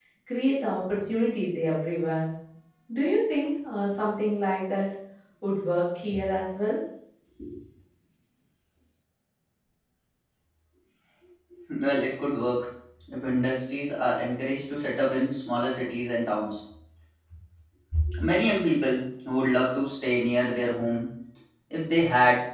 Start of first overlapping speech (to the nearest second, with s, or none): none